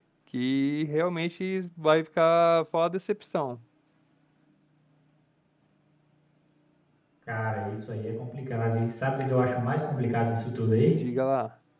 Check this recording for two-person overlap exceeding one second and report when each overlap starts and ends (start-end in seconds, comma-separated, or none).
none